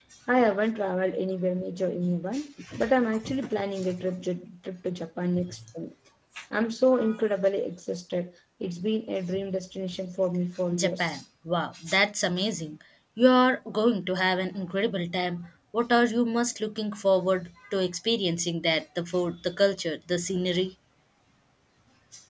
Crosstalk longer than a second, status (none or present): none